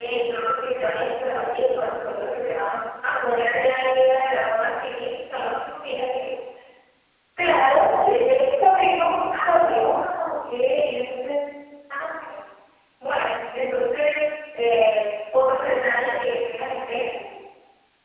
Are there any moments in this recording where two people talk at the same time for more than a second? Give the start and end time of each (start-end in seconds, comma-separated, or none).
none